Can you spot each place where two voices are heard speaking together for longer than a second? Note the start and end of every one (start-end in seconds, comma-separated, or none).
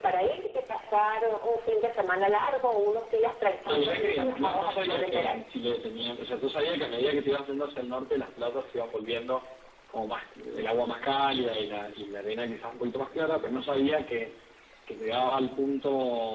3.6-5.4